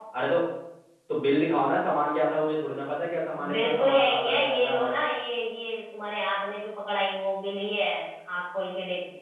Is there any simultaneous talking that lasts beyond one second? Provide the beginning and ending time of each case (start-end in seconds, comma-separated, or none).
3.5-5.0